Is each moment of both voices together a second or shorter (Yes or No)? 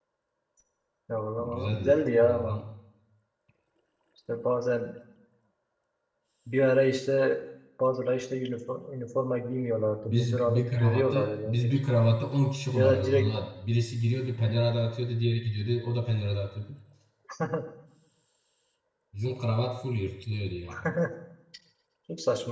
No